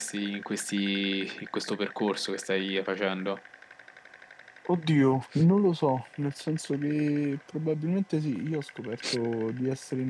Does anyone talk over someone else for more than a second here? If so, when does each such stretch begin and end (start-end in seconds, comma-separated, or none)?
none